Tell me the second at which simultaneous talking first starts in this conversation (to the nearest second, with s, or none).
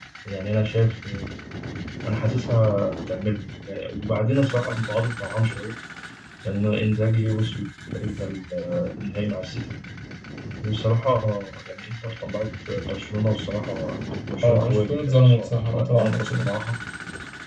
14 s